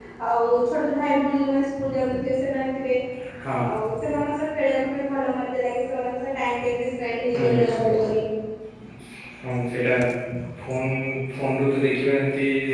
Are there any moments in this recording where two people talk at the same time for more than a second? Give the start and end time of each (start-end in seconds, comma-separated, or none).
none